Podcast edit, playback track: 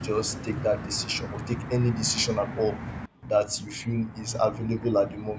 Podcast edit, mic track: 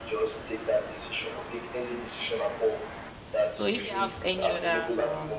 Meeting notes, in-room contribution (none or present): present